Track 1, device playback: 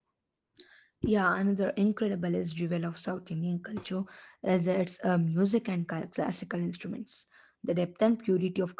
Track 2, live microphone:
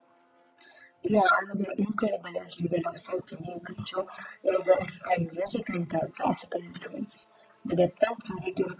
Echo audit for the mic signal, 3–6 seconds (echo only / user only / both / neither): echo only